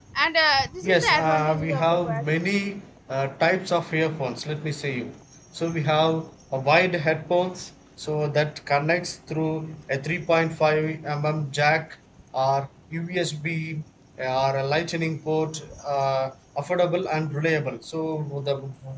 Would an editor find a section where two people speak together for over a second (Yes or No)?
Yes